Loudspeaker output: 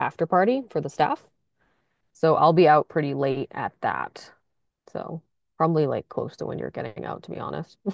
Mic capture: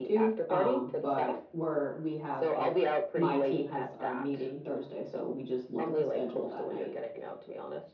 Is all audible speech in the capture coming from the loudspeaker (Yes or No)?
No